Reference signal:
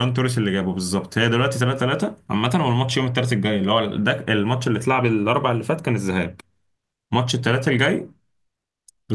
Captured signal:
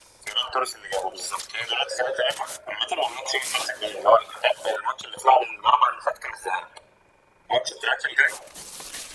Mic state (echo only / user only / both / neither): echo only